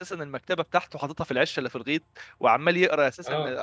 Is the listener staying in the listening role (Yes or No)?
Yes